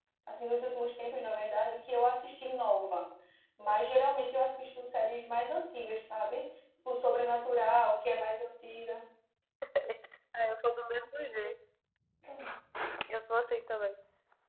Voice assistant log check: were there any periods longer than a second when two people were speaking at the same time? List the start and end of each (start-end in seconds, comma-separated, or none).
none